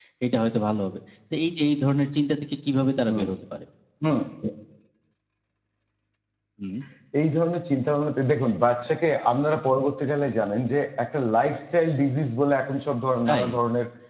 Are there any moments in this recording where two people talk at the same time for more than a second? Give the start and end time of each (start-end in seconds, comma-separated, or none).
none